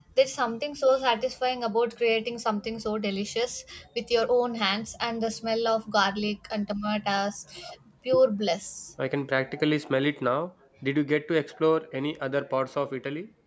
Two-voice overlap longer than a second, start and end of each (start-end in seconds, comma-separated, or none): none